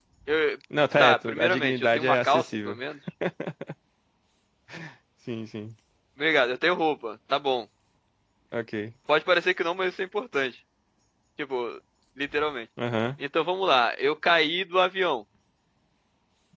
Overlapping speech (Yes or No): Yes